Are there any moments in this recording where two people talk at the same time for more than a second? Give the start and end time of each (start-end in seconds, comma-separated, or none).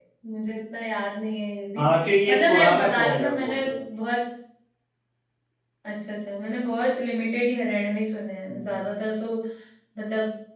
2.3-3.7